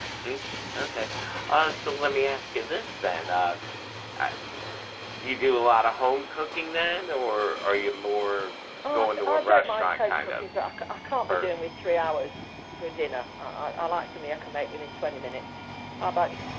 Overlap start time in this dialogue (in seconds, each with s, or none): 8.9 s